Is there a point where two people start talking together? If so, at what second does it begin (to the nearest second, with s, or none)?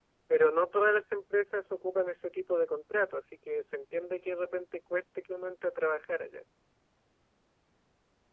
none